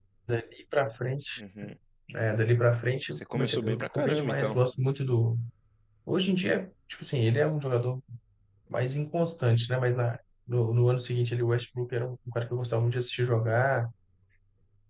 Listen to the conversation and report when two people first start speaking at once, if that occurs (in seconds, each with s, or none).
3.1 s